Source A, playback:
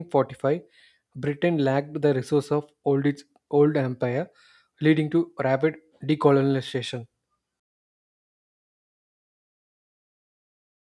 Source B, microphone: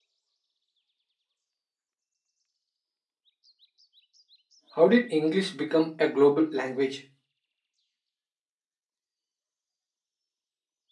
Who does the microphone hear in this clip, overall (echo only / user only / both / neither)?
user only